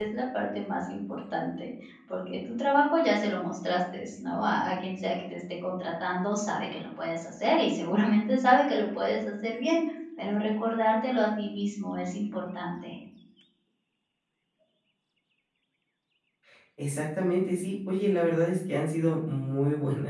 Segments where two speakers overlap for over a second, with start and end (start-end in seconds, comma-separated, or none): none